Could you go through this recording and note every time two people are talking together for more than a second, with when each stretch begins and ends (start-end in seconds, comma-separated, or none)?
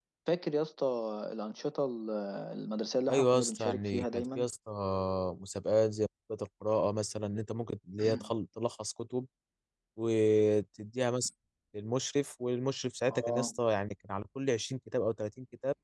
3.1-4.5